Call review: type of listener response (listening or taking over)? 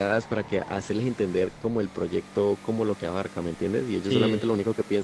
listening